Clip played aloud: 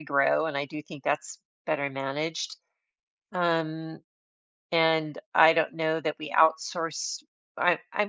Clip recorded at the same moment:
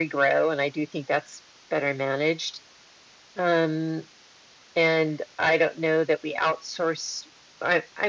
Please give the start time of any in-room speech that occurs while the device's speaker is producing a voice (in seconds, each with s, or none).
none